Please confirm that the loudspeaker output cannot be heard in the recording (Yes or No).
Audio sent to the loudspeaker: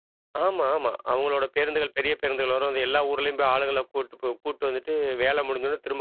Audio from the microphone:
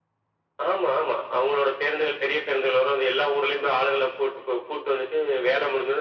No